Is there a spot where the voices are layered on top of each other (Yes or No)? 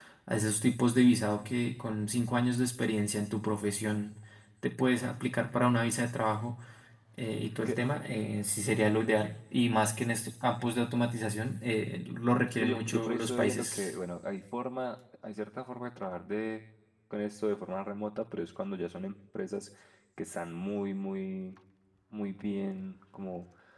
Yes